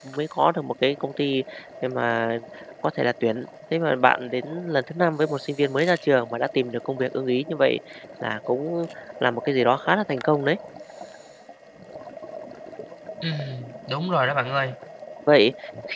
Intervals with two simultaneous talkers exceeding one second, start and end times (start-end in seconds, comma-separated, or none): none